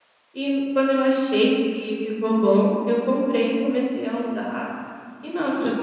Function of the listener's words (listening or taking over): listening